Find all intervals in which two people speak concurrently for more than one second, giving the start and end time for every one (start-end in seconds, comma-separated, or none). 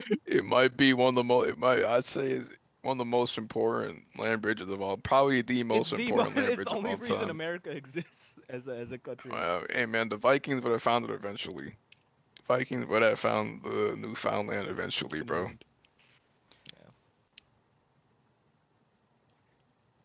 5.7-7.4